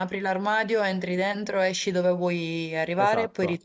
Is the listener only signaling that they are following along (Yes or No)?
No